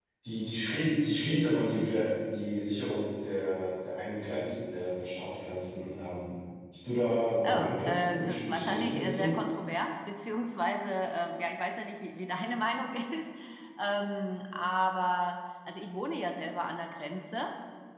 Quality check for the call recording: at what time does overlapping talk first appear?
7.4 s

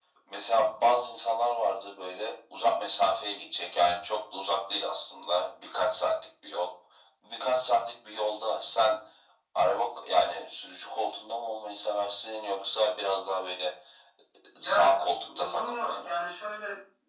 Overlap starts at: 14.6 s

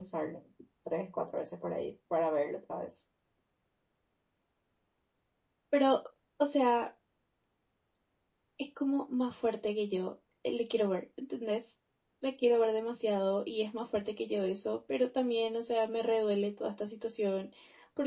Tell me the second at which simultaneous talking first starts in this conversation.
none

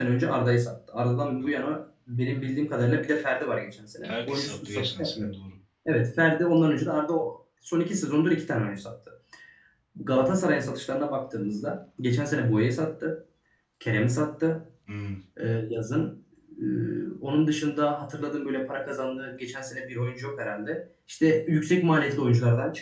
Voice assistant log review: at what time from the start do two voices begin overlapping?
4.0 s

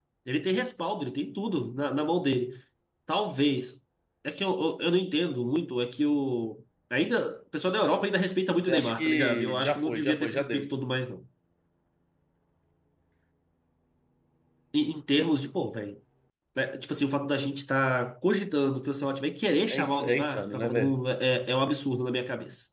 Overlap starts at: 8.4 s

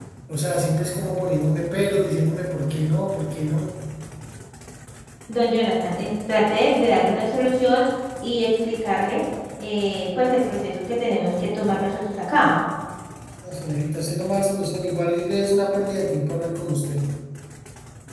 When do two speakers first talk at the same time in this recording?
none

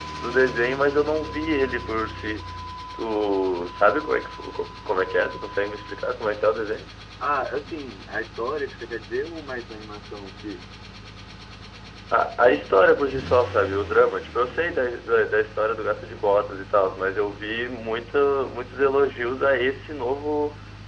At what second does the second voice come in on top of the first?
none

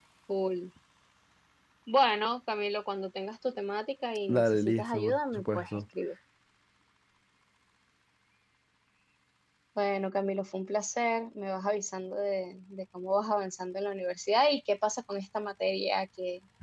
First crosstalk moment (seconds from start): 4.3 s

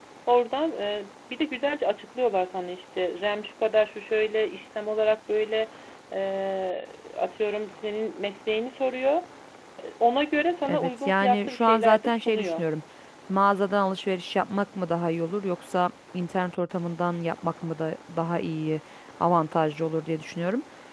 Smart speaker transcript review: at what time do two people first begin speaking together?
10.7 s

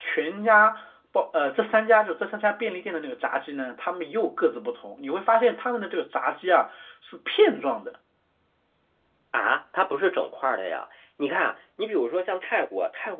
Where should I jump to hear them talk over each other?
none

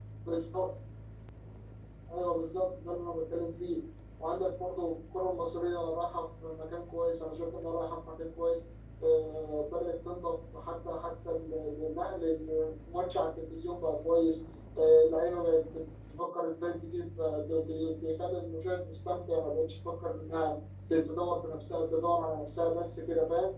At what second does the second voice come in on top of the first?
none

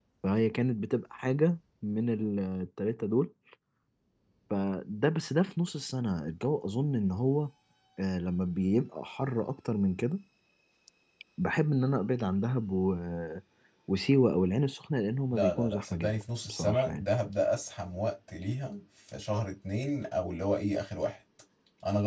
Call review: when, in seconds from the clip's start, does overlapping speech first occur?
15.3 s

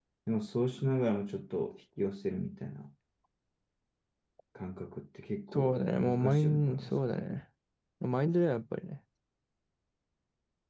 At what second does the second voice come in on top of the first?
5.5 s

